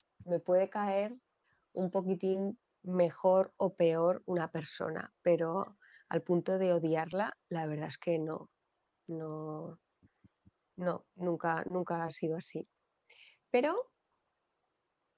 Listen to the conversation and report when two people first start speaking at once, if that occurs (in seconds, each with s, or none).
none